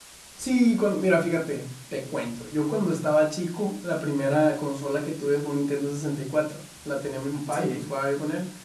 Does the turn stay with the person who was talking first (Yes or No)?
Yes